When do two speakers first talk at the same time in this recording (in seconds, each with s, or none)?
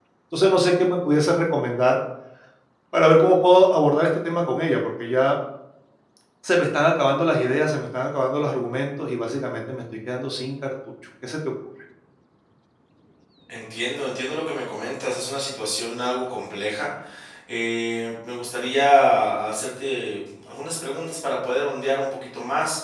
none